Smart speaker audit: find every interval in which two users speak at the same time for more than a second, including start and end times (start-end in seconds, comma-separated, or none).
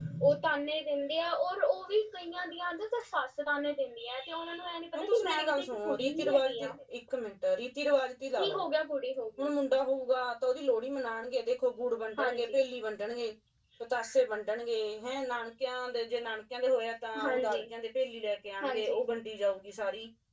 5.0-6.7